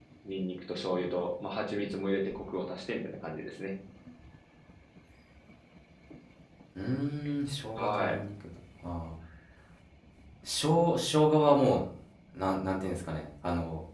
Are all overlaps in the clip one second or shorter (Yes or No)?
Yes